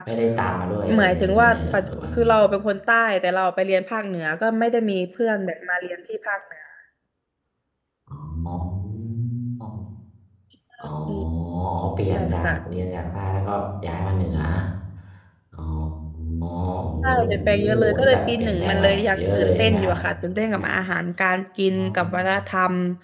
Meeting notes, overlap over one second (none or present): present